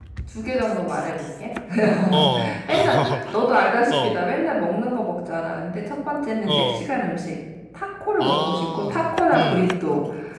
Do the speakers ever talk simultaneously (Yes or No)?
Yes